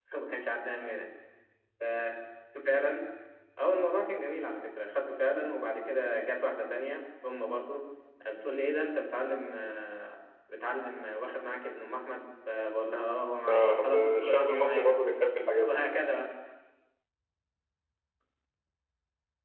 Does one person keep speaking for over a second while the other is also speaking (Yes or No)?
Yes